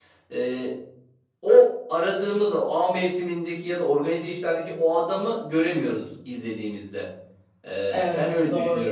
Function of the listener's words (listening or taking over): taking over